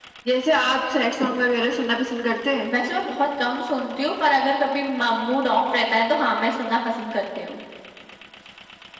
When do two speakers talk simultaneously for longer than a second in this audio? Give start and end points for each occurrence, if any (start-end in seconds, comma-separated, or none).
none